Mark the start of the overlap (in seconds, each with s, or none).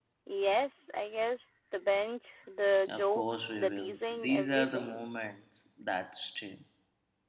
2.9 s